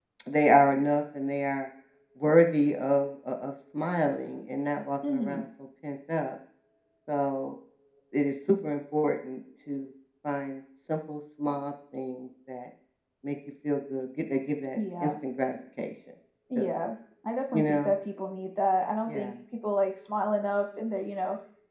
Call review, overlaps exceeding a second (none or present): none